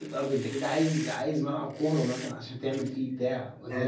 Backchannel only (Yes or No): Yes